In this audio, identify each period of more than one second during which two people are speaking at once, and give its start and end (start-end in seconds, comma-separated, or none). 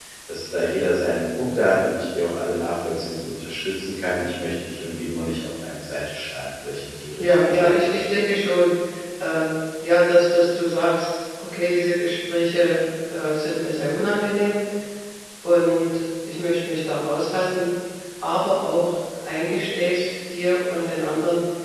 none